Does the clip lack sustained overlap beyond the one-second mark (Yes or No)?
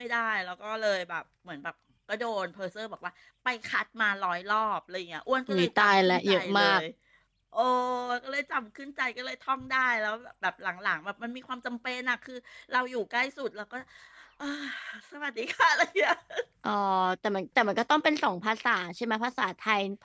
No